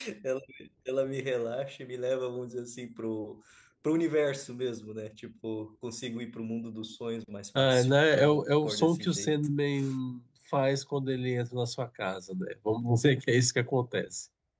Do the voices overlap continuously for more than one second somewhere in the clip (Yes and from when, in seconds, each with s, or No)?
Yes, from 7.5 s